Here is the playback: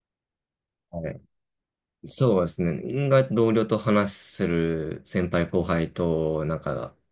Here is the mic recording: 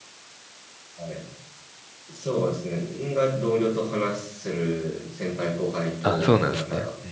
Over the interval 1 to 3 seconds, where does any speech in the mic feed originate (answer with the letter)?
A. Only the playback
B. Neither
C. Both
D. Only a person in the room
A